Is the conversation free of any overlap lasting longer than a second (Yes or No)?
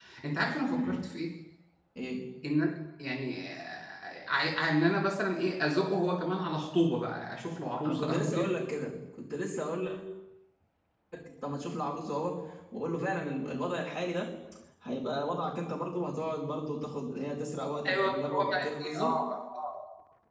No